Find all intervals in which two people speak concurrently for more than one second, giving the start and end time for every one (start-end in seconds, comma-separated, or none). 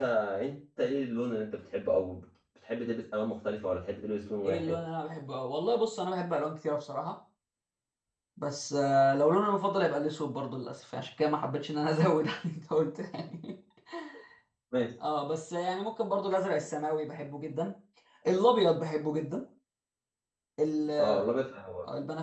none